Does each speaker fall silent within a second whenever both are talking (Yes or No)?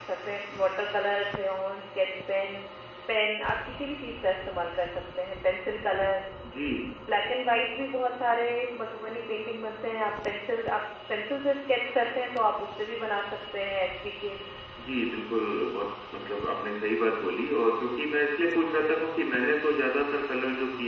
Yes